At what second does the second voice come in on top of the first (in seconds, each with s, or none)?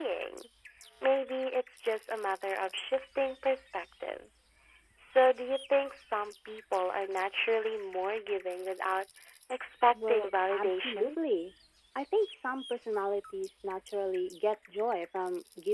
9.9 s